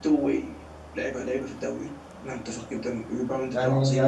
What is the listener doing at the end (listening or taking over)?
taking over